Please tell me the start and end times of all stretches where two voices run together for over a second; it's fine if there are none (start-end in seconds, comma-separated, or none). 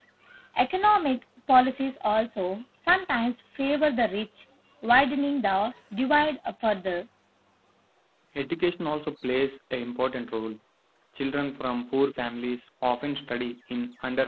none